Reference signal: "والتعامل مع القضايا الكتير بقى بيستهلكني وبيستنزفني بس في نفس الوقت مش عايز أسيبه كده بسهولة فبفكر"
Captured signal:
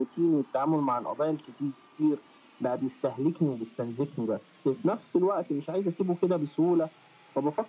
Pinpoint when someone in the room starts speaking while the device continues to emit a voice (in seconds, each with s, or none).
none